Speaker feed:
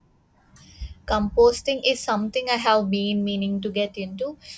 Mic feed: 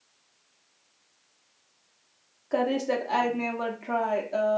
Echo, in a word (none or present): none